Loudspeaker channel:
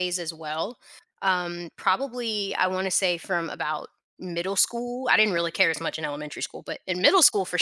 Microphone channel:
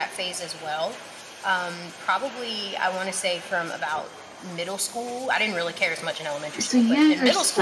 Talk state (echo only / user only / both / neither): both